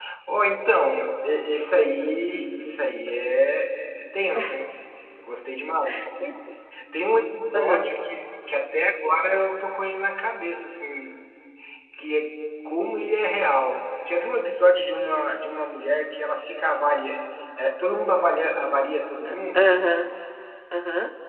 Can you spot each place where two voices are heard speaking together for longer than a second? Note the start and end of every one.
none

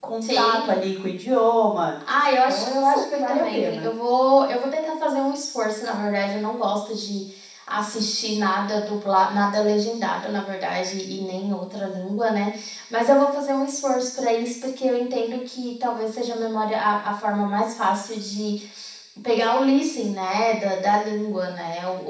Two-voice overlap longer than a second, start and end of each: 2.5-3.9

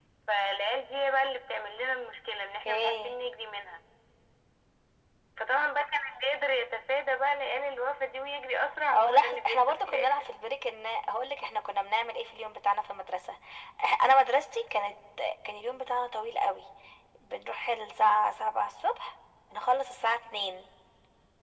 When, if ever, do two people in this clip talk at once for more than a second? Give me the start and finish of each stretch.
8.9-10.3

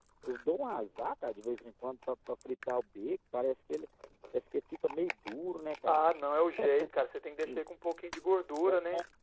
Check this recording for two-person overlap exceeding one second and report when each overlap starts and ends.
none

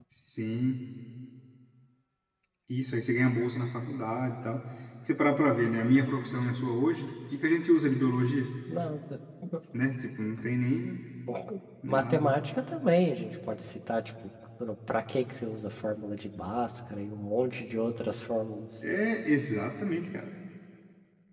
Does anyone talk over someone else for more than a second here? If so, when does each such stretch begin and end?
none

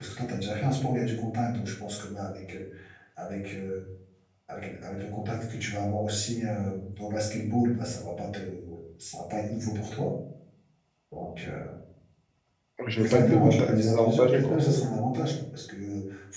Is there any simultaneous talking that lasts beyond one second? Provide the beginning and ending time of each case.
13.0-14.6

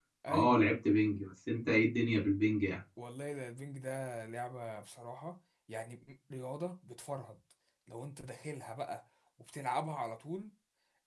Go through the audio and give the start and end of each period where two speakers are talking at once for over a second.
none

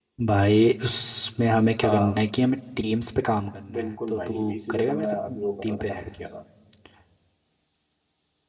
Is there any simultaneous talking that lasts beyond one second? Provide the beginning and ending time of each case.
3.7-5.9

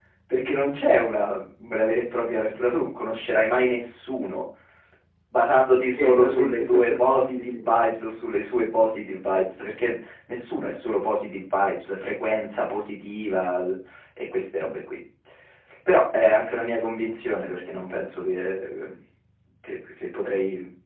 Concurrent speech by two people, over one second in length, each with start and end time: 5.9-7.8

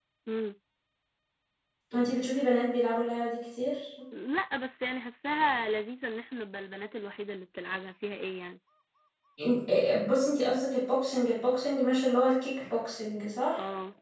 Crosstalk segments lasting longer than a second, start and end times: none

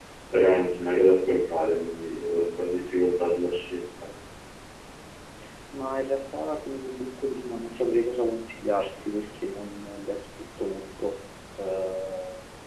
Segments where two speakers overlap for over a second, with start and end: none

